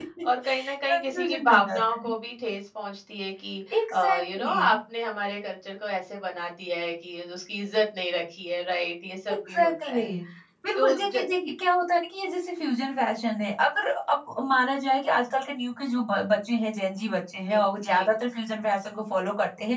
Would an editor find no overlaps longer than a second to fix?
No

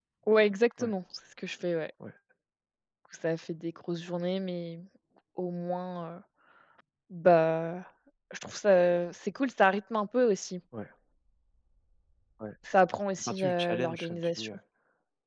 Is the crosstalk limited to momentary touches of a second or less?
No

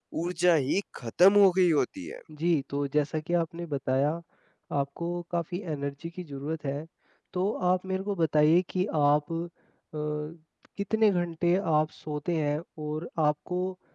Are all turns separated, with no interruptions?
Yes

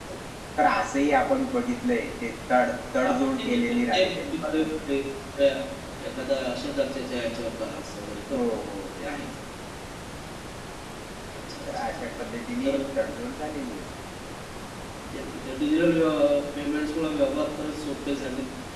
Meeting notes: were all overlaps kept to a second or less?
No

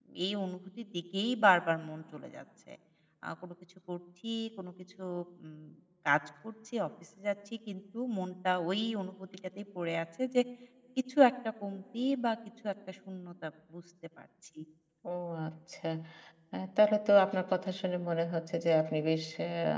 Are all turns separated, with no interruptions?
Yes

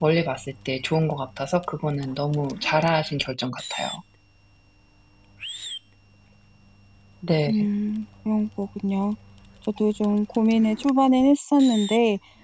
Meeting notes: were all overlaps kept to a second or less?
Yes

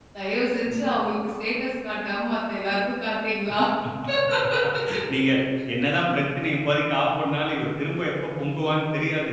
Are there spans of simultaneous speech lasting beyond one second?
No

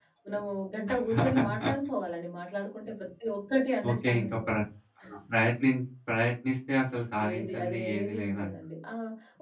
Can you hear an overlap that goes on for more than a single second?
Yes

